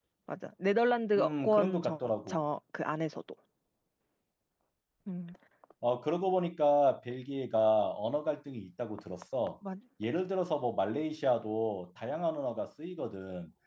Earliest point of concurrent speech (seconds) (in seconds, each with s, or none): 1.2 s